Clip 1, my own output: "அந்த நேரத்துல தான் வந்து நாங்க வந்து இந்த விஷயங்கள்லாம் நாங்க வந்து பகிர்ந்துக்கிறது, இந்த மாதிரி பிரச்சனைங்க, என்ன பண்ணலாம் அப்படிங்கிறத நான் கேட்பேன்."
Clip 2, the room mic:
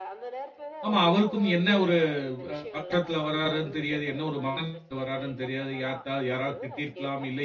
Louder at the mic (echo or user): user